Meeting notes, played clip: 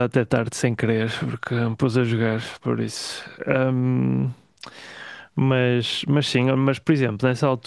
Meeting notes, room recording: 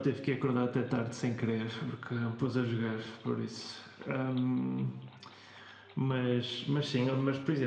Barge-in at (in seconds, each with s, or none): none